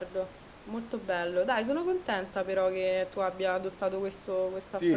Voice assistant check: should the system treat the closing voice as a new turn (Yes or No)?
Yes